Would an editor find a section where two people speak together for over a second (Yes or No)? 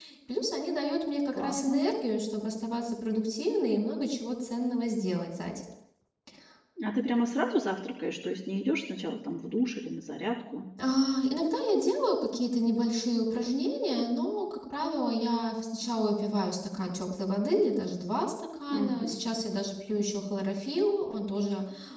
No